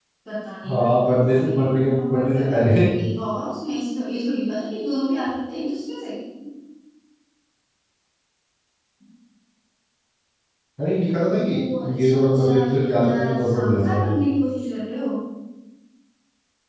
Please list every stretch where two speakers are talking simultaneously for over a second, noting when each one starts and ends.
0.7-2.8, 12.0-14.1

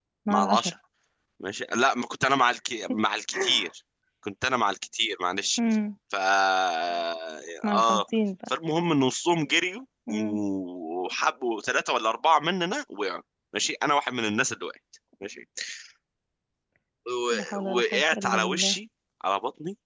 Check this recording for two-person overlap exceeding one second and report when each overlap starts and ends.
17.3-18.8

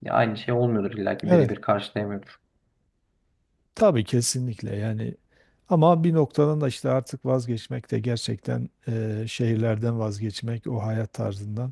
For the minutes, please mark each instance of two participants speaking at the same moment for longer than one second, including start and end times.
none

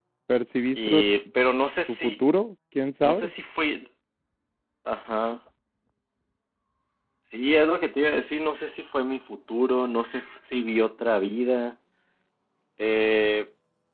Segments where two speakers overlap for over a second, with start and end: none

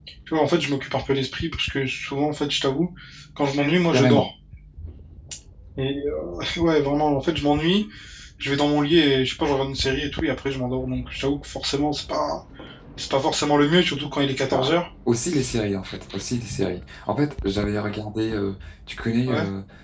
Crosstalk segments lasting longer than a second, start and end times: none

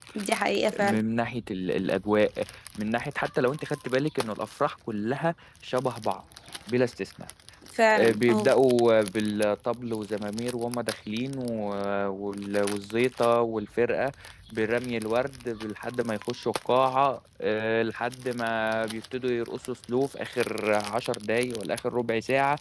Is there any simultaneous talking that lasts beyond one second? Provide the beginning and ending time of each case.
none

